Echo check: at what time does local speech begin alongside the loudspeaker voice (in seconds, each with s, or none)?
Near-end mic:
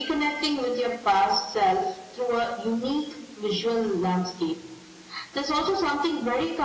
none